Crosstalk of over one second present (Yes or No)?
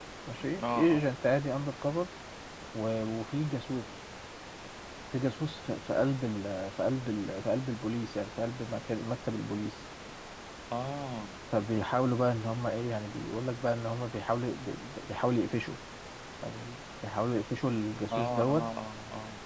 No